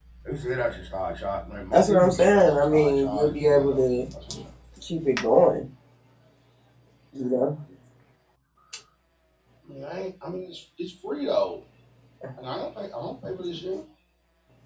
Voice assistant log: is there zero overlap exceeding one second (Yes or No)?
No